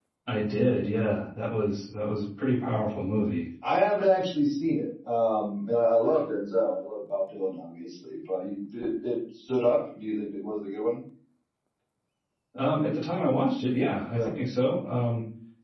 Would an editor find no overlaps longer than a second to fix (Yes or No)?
Yes